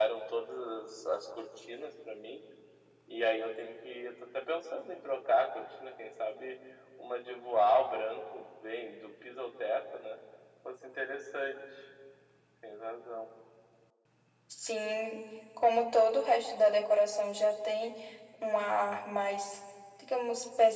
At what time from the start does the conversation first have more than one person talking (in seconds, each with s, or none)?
none